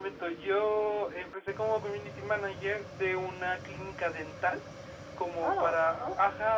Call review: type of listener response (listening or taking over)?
listening